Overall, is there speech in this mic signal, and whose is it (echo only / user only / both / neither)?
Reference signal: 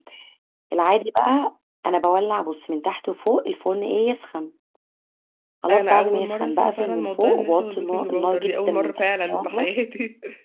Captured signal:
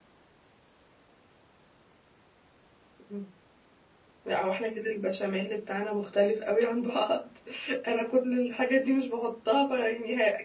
user only